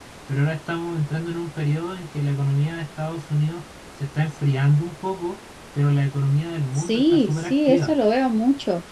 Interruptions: present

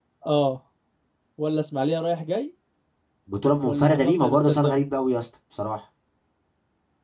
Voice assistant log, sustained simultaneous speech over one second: present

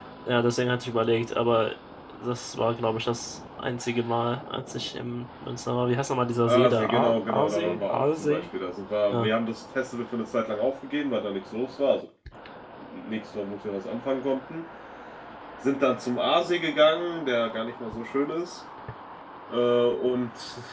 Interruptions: present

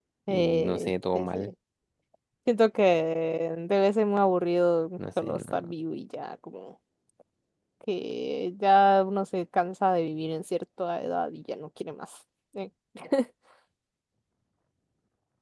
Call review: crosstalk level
present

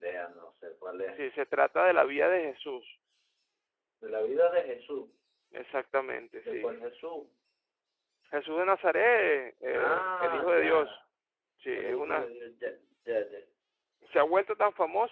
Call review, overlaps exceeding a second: present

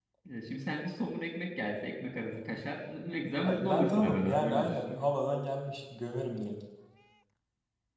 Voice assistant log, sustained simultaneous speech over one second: present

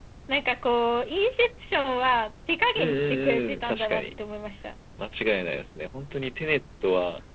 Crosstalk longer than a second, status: present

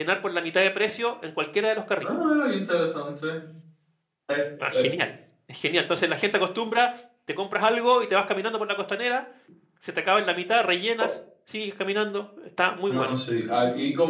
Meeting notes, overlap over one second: none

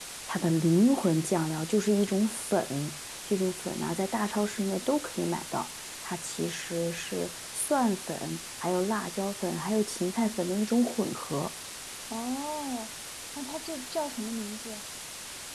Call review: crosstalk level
none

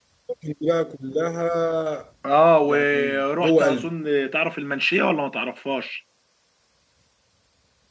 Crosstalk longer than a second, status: present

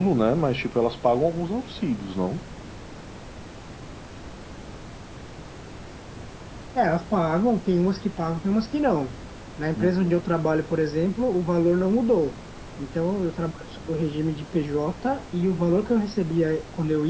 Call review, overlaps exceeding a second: none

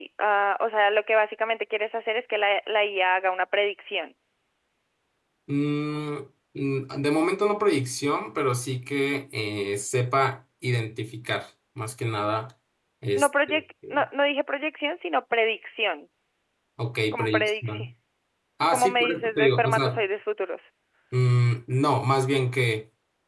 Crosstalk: present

